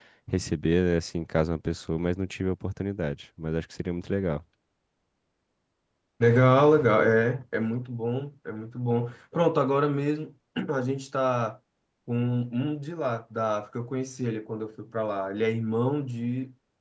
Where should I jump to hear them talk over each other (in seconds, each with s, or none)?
none